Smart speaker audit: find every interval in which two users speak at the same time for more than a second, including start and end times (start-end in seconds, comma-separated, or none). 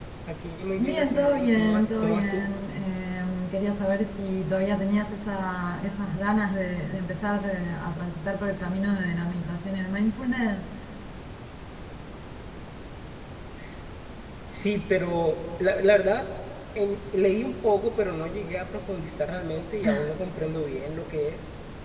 0.8-2.5